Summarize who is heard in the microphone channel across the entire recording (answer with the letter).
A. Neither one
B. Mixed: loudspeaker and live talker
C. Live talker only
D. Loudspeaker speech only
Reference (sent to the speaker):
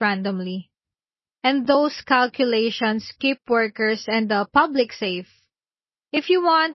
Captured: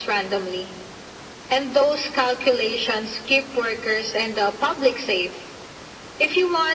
D